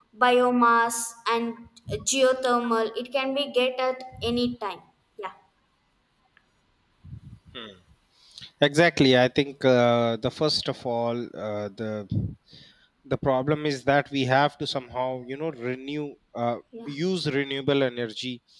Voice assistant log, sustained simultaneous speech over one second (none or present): none